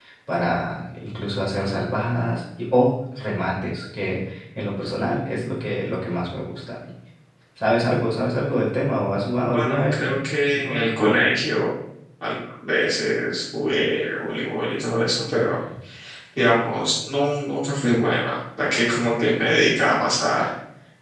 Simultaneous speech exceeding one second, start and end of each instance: 9.5-10.8

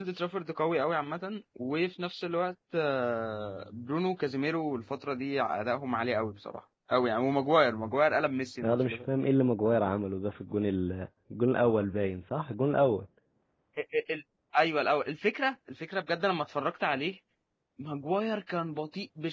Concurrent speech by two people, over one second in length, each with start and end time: none

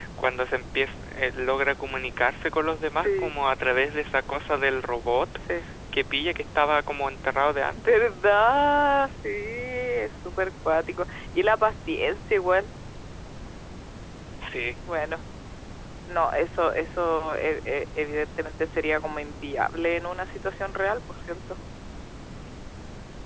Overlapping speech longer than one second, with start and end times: none

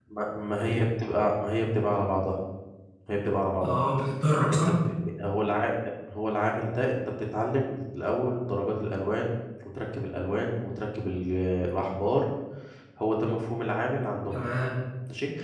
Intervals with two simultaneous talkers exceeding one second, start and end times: none

